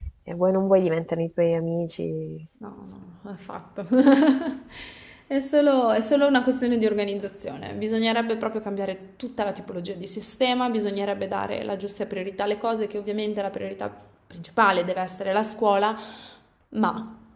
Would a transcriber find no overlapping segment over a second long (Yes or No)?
Yes